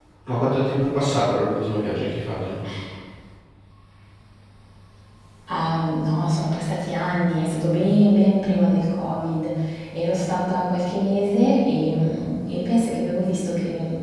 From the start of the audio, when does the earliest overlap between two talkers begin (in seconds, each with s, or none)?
none